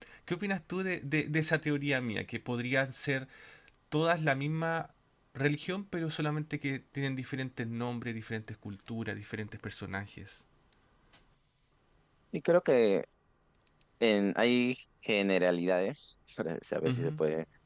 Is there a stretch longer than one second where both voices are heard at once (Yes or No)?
No